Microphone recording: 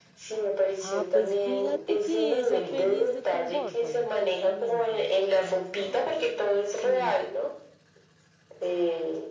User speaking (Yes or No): Yes